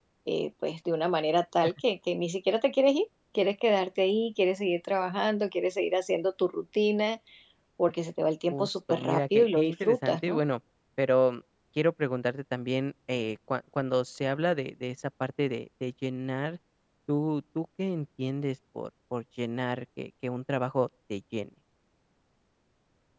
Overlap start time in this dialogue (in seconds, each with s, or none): 8.5 s